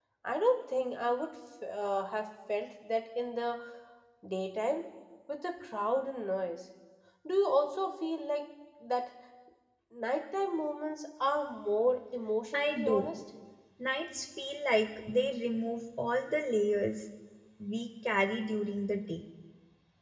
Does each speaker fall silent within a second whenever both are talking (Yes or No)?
Yes